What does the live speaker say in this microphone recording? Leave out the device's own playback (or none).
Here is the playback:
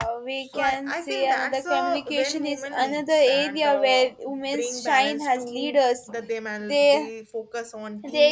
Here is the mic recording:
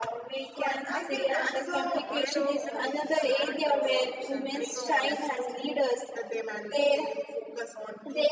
and leadership is not uh, only about being positions it's also